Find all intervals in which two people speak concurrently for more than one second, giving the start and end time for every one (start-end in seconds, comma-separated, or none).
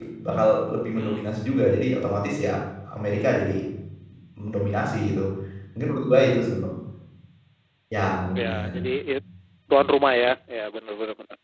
none